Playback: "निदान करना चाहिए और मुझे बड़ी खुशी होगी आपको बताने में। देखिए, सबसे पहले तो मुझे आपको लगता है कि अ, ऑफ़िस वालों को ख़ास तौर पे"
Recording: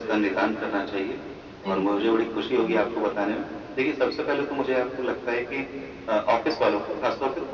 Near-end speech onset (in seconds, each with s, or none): 1.6 s